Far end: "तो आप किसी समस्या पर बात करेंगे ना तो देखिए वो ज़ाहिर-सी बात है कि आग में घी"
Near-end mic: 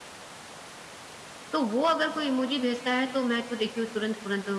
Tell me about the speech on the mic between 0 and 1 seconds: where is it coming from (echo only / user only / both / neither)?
neither